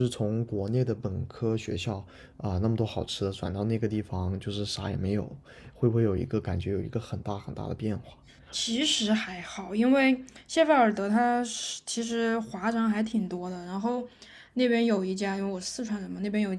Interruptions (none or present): none